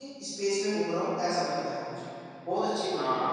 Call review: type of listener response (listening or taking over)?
taking over